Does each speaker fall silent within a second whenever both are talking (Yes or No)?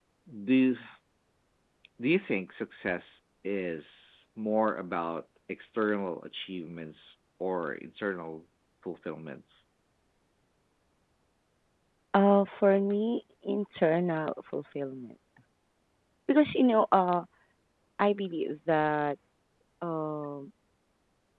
Yes